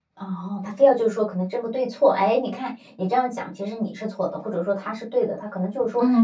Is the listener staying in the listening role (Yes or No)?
No